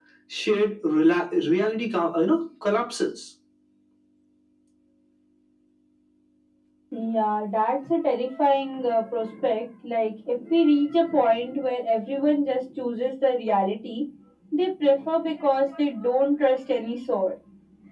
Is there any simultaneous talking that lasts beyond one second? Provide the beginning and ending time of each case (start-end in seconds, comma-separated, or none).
none